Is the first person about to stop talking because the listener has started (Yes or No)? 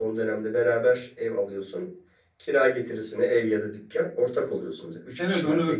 Yes